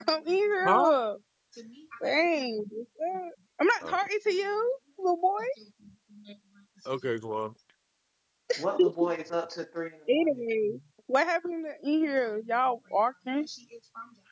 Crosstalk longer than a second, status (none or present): none